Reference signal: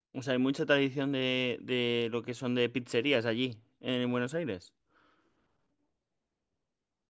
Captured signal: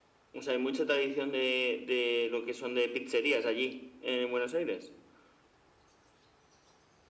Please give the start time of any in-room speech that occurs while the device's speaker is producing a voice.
none

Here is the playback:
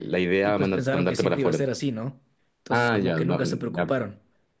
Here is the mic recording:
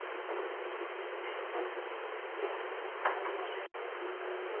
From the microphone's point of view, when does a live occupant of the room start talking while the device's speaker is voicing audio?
none

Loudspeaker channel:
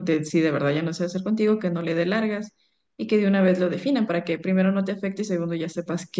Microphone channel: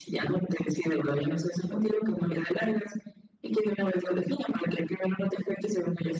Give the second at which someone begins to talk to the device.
none

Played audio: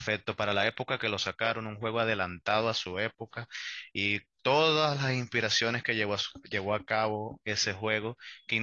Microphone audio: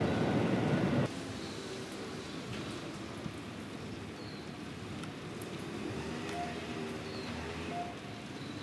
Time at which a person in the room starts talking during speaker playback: none

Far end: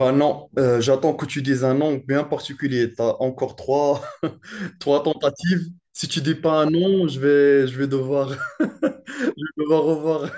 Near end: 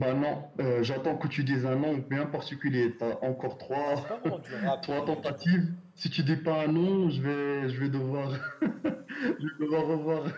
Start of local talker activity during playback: 3.8 s

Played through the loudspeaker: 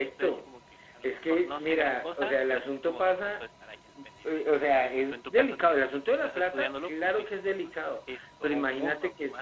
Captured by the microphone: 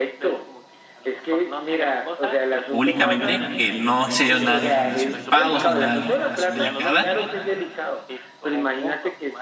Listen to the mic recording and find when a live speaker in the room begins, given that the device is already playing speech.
2.7 s

